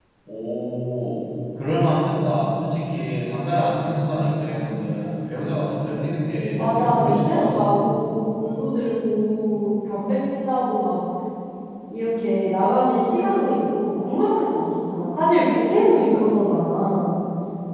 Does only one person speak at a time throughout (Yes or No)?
No